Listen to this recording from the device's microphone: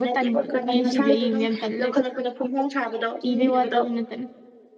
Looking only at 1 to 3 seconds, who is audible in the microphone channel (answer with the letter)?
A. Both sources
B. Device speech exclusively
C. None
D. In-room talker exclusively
A